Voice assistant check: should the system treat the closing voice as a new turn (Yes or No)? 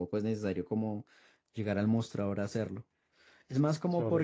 Yes